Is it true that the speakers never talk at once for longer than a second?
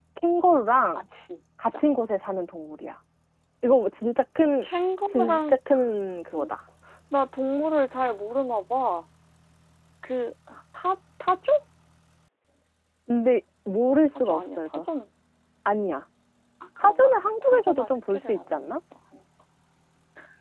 No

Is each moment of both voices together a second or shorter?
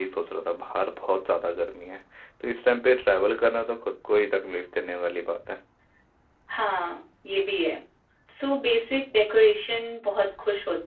Yes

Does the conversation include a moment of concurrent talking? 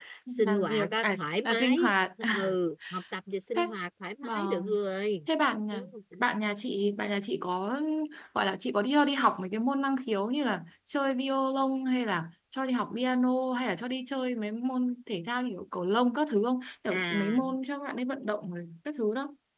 Yes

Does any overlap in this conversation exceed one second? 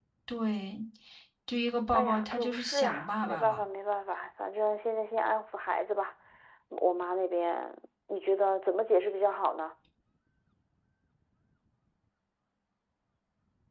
Yes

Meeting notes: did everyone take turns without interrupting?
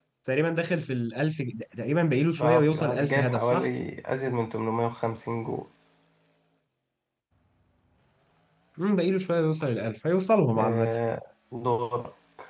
No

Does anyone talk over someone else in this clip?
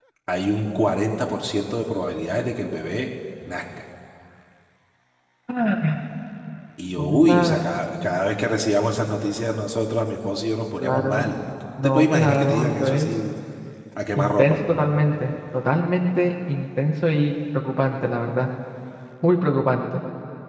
Yes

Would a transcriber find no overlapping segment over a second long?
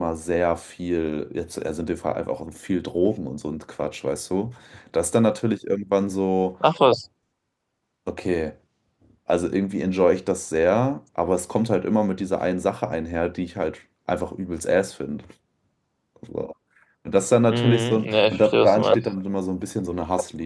No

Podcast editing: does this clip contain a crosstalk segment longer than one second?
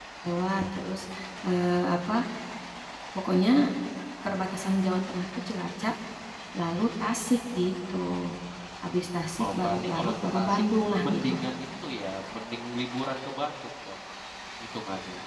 Yes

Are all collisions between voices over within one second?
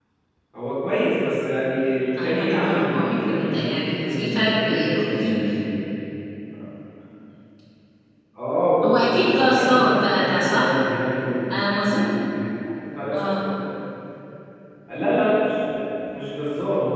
No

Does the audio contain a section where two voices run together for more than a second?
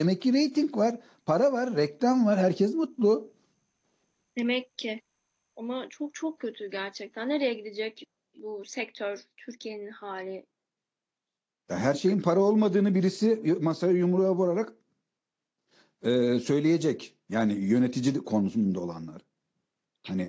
No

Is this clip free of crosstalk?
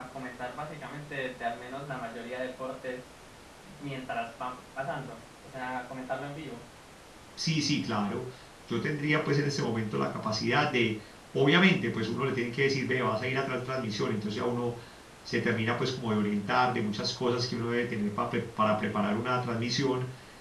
Yes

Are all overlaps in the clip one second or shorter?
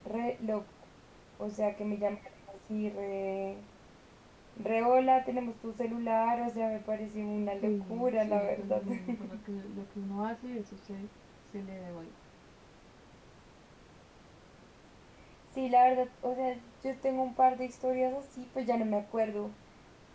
No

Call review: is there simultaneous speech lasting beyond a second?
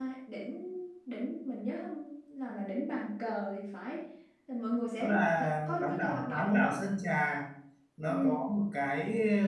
Yes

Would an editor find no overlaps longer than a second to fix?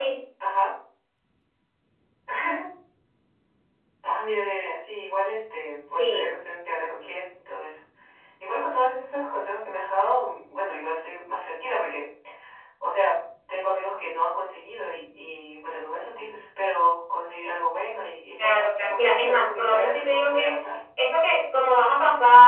No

